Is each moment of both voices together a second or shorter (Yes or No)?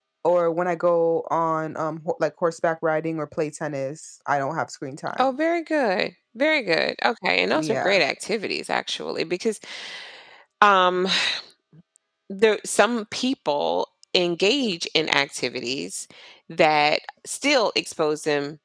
Yes